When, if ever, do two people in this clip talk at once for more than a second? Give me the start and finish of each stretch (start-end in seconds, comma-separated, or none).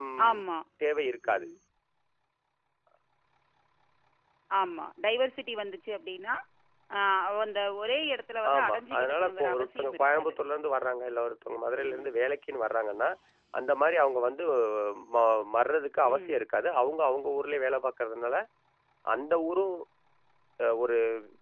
8.5-10.3